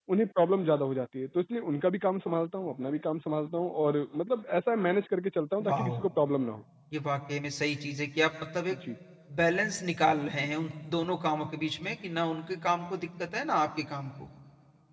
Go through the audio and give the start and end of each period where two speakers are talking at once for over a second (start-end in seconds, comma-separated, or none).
none